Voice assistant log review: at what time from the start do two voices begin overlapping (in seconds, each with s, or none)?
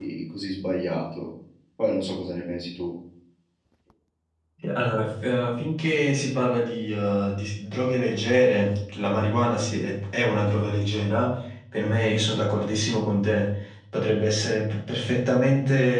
none